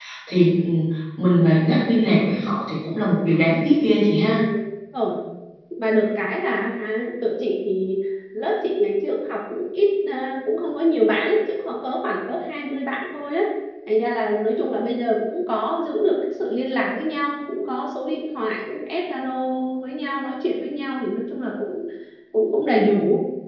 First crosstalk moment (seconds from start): none

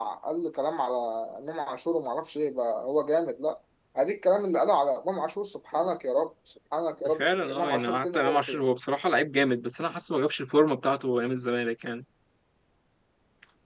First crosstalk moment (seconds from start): 7.0 s

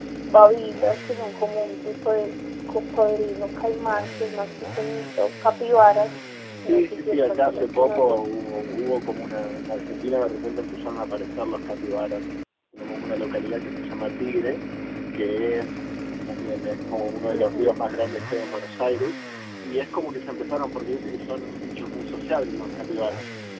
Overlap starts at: 6.7 s

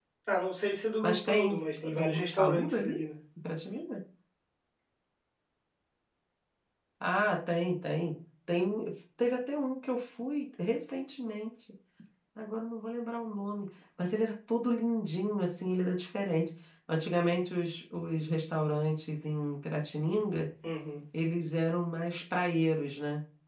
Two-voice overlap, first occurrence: 1.0 s

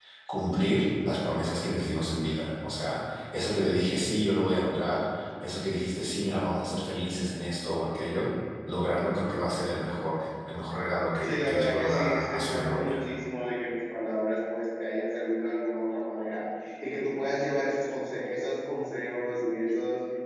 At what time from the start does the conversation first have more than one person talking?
11.2 s

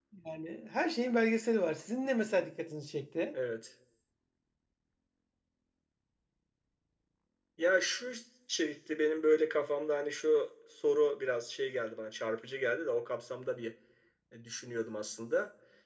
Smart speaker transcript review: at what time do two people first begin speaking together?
none

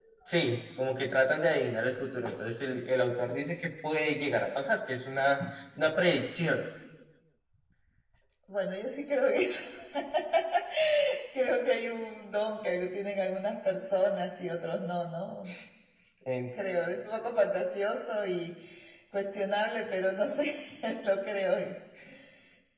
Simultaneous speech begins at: none

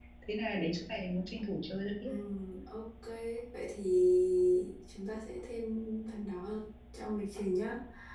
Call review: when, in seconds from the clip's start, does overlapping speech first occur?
none

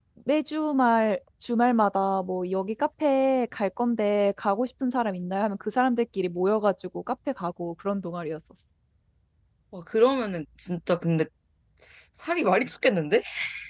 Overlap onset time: none

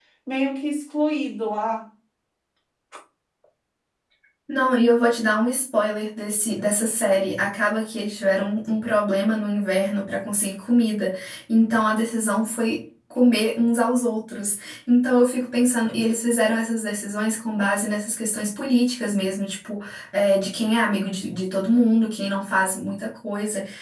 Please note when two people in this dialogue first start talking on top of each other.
none

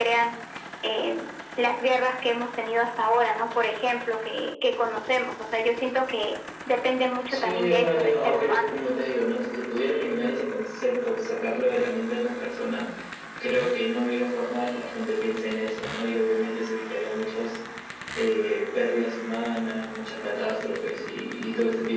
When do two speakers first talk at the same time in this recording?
7.3 s

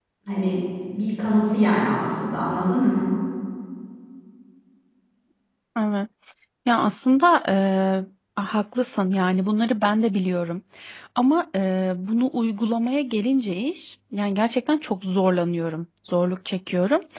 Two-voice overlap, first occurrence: none

